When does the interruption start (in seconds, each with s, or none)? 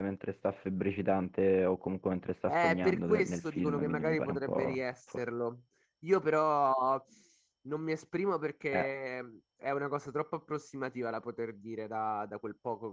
2.5 s